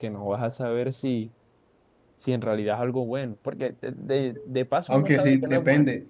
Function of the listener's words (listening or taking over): taking over